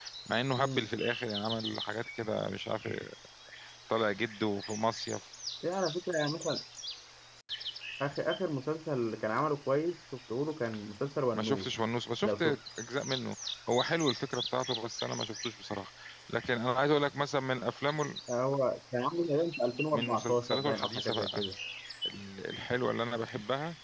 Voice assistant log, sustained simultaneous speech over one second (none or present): present